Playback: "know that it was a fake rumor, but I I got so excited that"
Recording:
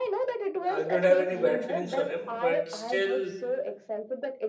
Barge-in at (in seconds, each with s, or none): 0.7 s